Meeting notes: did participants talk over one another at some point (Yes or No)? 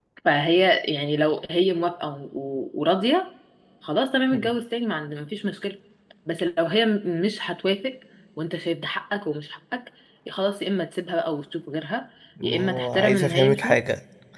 Yes